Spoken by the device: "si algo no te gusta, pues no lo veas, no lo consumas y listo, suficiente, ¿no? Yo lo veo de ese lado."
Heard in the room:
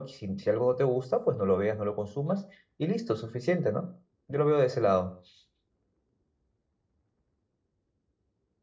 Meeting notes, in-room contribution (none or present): none